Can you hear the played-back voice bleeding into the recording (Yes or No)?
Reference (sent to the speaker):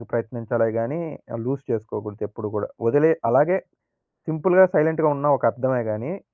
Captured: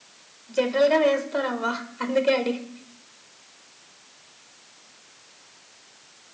No